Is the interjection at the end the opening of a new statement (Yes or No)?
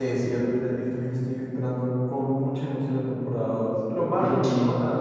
No